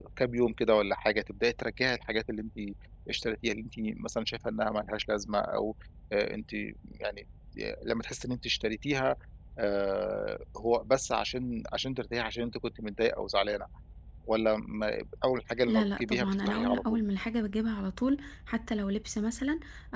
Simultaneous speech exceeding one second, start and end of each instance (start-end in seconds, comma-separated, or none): 15.7-17.0